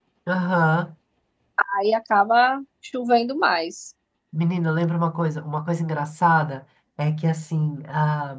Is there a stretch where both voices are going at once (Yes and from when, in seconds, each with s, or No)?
No